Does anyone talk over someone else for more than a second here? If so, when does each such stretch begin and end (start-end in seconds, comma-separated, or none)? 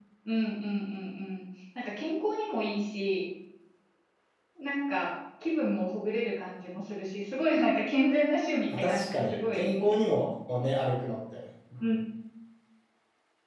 8.8-9.9